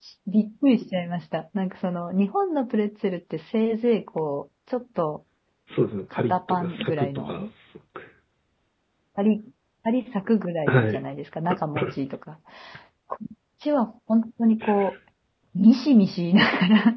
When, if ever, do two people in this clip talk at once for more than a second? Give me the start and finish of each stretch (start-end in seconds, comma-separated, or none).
6.1-7.4